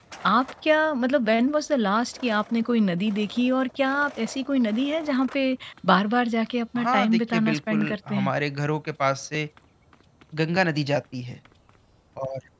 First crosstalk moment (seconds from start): 6.8 s

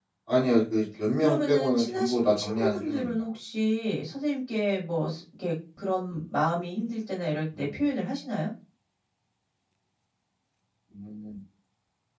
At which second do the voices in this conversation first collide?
1.2 s

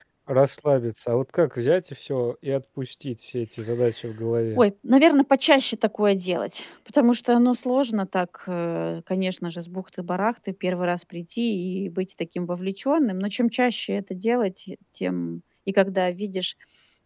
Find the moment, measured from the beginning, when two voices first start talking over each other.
none

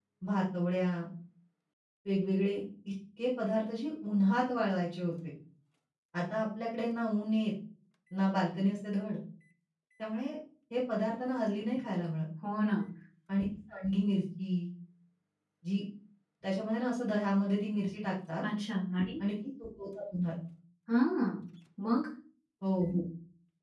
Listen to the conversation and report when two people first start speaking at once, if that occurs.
none

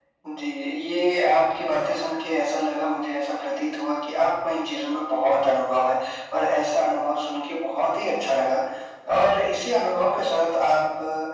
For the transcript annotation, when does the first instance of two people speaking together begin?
none

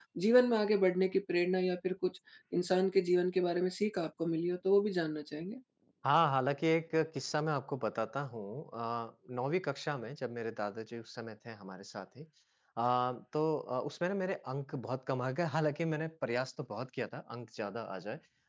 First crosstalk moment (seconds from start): none

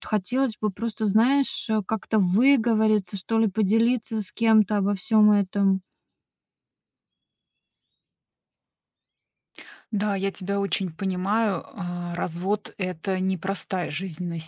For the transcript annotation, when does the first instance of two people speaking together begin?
none

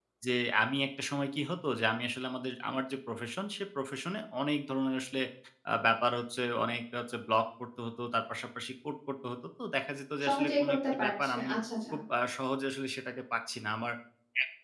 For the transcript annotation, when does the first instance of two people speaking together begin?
10.2 s

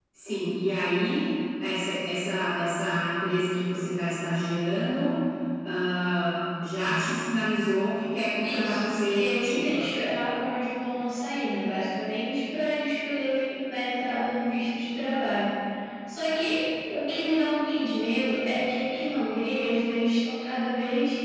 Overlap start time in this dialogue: 8.4 s

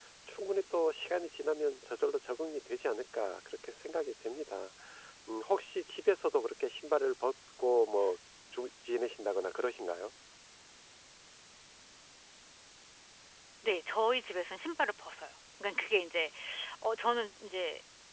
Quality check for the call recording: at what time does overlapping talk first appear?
none

